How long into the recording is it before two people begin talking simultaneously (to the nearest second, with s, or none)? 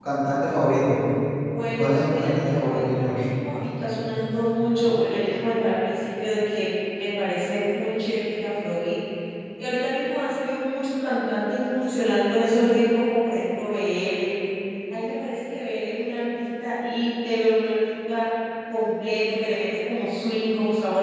2 s